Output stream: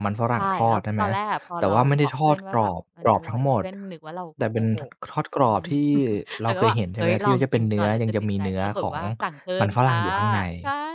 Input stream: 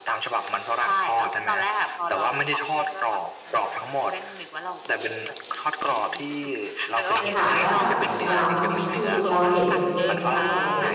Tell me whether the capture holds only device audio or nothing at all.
No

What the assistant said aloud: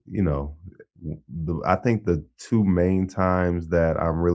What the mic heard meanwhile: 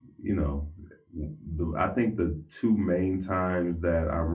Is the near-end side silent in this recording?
Yes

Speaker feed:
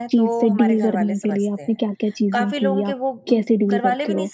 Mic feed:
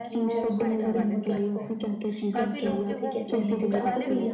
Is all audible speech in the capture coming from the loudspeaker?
No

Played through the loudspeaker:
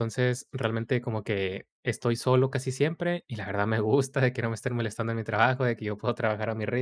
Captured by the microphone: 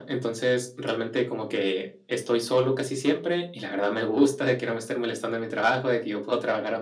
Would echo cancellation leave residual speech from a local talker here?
No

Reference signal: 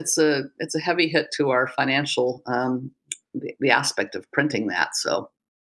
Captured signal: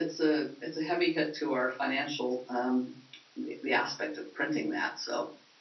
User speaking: No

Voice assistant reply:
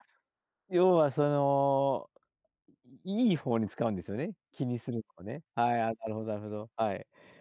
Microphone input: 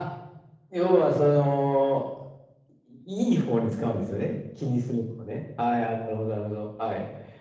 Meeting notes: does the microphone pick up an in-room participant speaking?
No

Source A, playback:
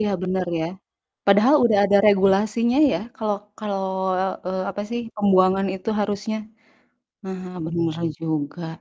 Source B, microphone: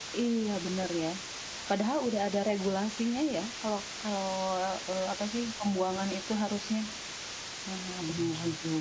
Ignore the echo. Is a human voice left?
No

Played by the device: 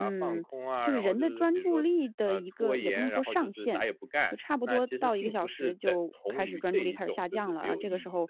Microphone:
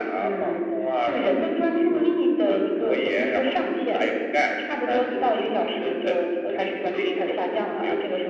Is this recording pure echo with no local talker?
Yes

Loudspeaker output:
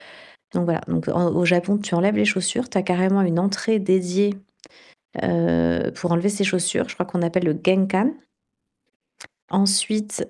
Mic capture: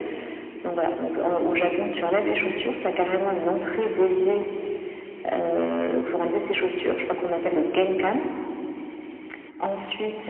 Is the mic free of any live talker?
Yes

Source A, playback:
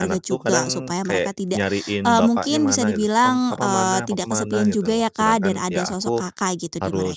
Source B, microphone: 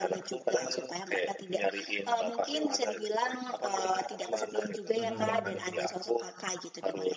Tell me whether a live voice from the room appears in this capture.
Yes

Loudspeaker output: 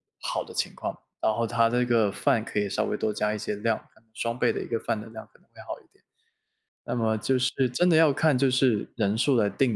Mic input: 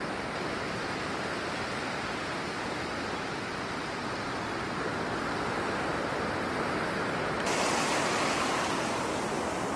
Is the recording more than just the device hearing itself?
No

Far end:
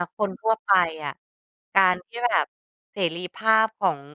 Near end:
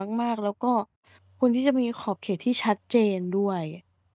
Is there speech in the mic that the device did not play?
Yes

